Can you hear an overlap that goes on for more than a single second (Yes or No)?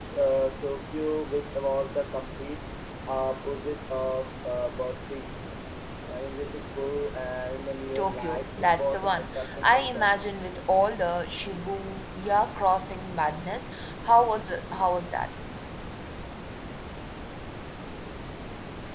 Yes